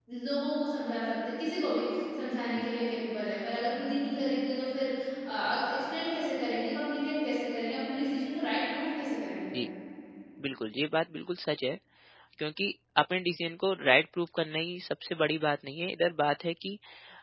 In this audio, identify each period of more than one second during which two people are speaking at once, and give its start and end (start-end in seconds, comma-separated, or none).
none